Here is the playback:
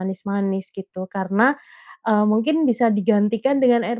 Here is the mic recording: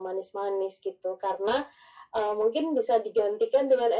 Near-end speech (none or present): none